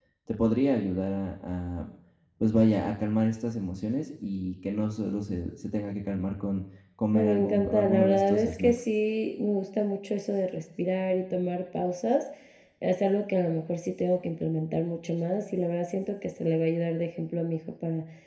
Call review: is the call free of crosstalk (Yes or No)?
No